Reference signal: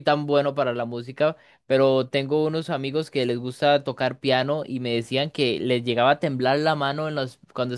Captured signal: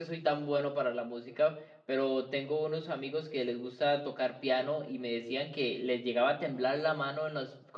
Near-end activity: none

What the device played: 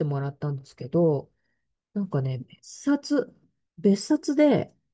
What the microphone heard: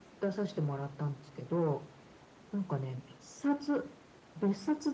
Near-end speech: none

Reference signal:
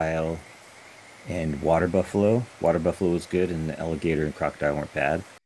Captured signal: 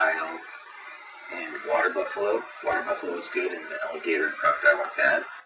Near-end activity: none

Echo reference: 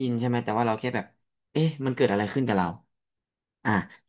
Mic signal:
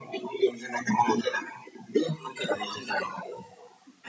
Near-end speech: none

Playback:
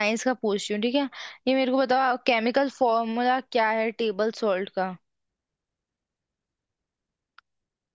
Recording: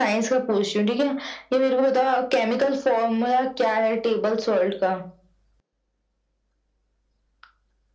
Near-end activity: none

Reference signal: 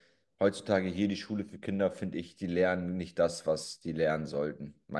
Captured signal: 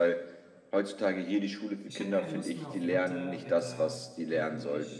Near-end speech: present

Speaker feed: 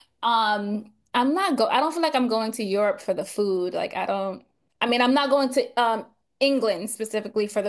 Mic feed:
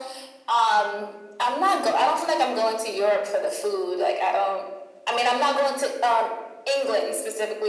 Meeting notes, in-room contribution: none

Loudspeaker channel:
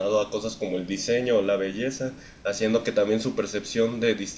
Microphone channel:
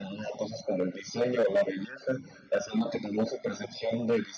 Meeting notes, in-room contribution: none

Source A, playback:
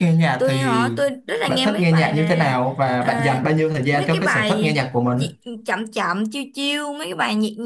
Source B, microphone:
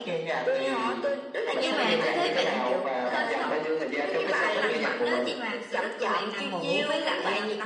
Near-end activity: present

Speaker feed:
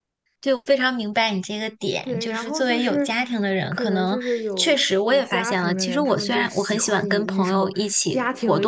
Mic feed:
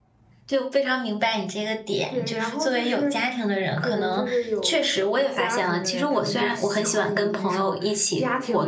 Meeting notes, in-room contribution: none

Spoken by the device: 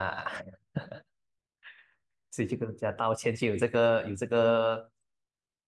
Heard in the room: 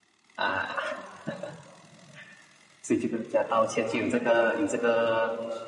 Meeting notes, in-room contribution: none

